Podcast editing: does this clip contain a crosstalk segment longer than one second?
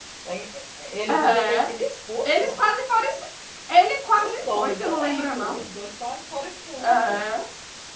Yes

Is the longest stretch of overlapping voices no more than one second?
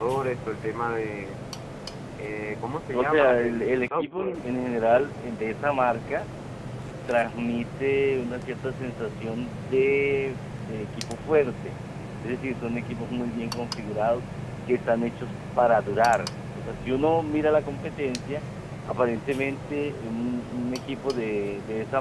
No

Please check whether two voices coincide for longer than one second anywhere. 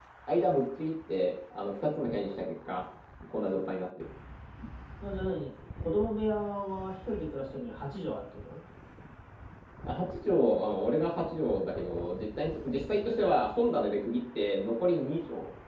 No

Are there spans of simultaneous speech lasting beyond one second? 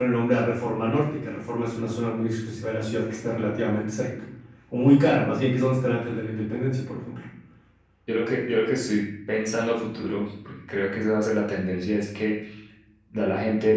No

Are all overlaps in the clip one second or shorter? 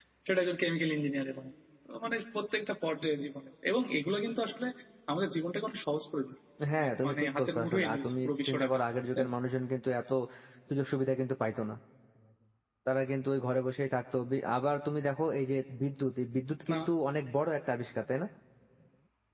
No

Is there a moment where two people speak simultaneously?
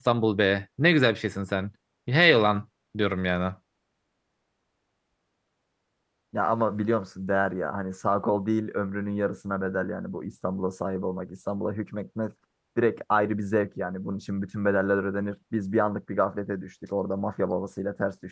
No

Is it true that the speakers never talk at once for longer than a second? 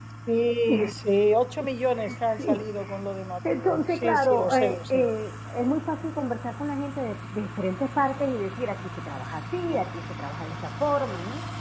No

